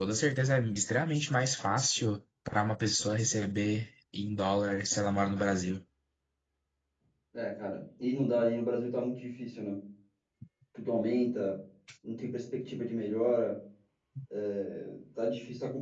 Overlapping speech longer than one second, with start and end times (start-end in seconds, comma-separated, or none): none